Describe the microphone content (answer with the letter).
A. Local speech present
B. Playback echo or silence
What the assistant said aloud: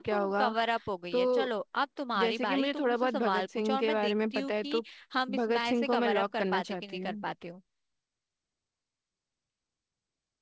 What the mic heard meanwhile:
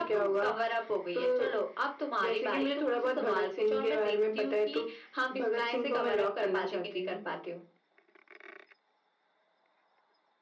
B